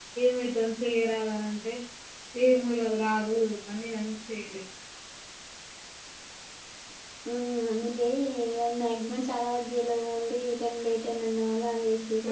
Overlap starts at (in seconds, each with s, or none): none